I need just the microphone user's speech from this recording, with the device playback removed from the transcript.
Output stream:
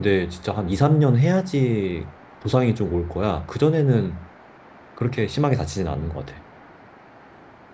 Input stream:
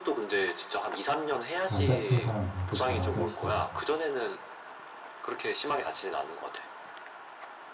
안 다치는 사람들은 또 잘 안 다치더라고.

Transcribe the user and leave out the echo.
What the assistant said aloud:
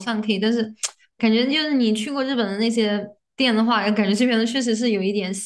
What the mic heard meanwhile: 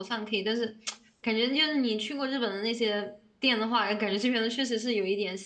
none

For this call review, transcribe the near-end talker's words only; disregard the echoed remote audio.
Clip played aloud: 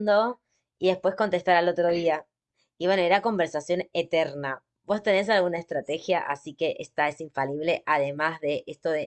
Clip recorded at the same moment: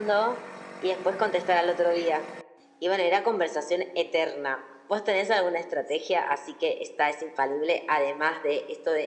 none

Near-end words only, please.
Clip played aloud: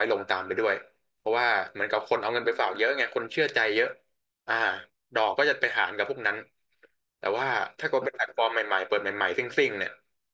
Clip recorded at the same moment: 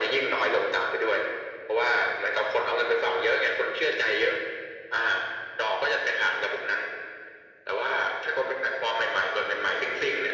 none

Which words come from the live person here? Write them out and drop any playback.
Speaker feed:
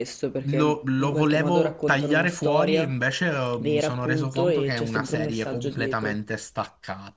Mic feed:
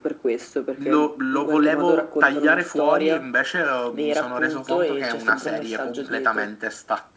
none

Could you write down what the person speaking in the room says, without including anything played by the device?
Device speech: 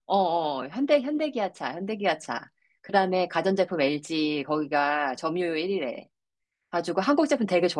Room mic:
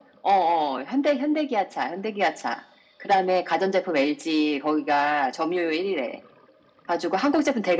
none

